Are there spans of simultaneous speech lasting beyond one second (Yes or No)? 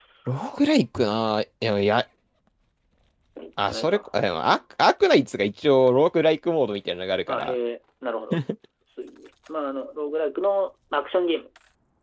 No